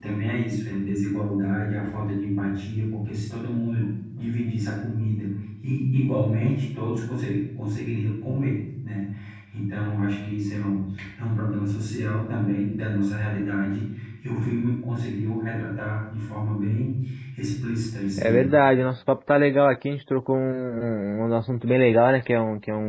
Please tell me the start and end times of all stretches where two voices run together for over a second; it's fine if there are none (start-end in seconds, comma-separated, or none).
none